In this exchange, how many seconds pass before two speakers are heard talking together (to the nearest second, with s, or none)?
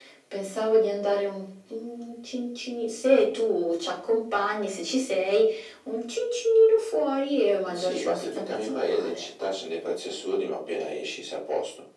8 s